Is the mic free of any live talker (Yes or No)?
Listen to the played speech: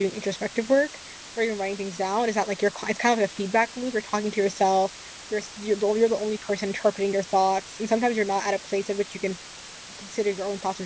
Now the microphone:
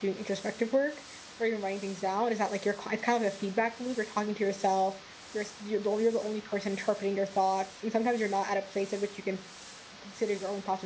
Yes